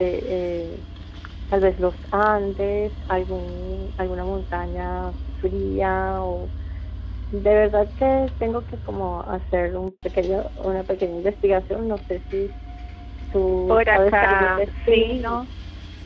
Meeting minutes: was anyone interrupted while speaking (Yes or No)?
Yes